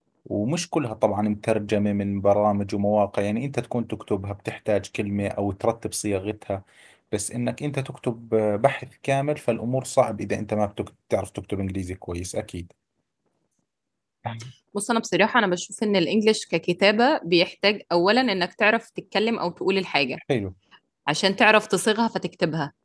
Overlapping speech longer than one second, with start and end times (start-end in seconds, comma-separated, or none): none